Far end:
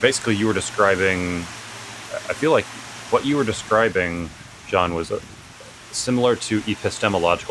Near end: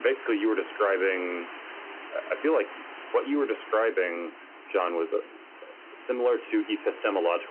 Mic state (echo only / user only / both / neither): echo only